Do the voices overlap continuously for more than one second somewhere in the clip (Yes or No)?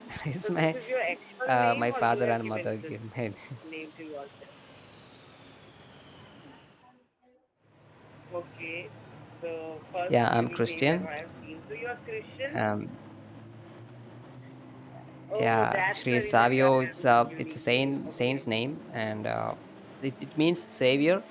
Yes